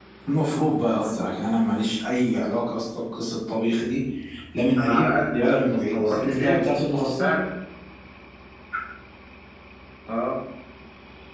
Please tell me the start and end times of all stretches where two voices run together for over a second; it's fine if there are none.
4.8-6.7

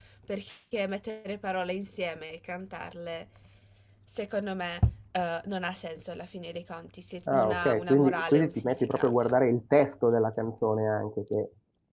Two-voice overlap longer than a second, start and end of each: 7.3-9.4

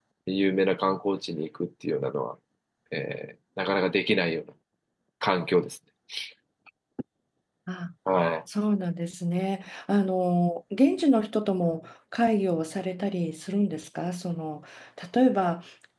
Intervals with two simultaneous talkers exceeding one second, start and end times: none

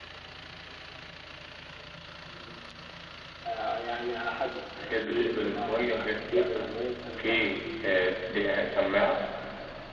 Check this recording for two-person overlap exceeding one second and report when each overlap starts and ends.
4.8-6.7

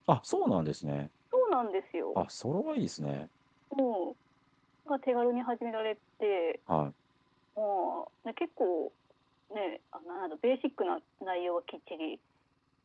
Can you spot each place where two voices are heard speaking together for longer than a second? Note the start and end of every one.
none

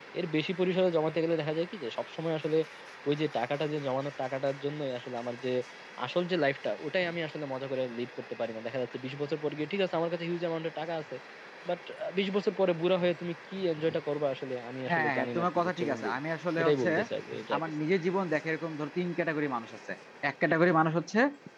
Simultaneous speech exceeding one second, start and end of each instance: 14.9-16.1

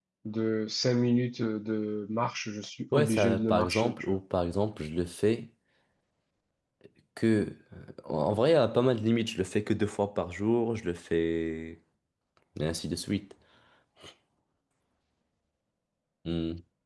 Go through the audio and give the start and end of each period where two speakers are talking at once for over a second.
2.9-4.2

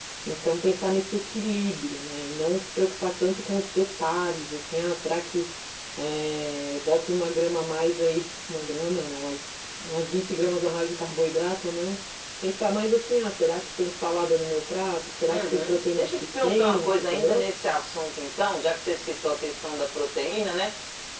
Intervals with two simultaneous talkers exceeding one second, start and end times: 15.3-17.5

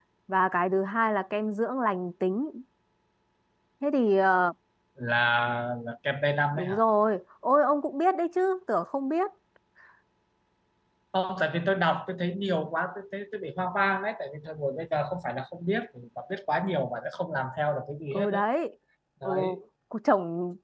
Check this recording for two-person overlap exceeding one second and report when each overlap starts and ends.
none

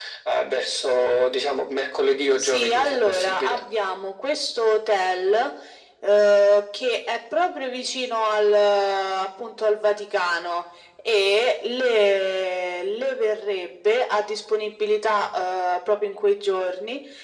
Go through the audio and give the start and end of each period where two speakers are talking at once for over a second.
2.4-3.6

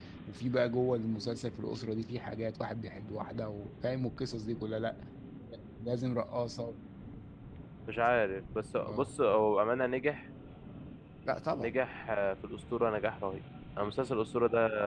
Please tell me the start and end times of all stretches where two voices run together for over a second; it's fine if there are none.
none

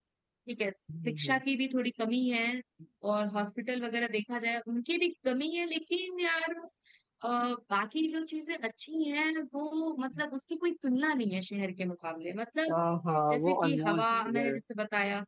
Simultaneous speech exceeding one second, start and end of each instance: 13.3-14.5

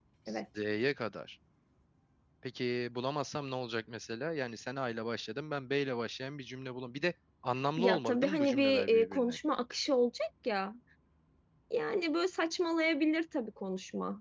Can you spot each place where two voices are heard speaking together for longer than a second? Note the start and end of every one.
7.8-9.4

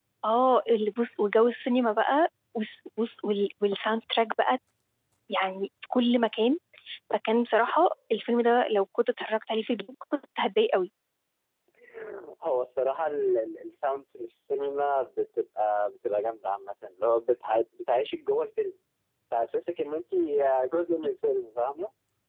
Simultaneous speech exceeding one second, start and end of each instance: none

